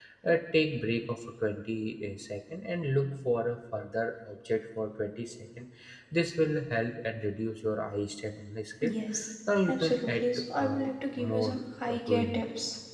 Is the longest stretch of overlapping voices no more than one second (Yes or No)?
No